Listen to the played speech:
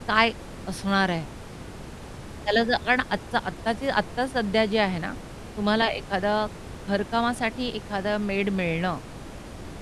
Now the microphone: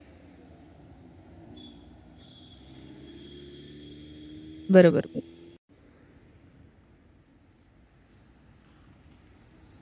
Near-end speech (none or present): present